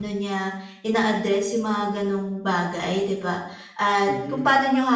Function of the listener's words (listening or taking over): listening